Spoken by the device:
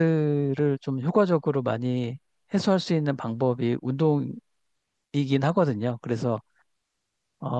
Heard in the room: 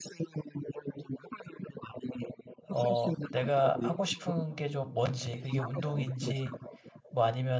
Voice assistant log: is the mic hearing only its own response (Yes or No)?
No